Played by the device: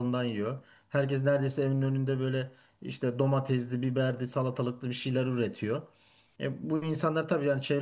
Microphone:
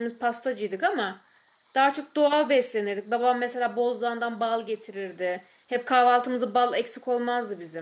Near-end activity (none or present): present